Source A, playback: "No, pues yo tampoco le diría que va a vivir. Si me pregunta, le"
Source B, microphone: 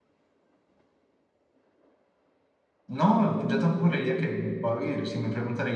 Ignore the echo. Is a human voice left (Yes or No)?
No